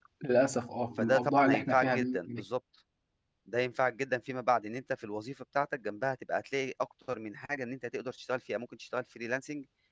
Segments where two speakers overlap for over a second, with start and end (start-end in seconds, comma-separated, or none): 1.0-2.4